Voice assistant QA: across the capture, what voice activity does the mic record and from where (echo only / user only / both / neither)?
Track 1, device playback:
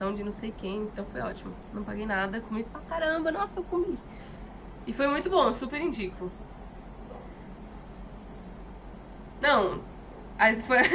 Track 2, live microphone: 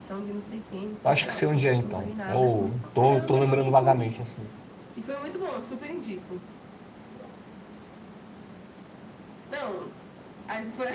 both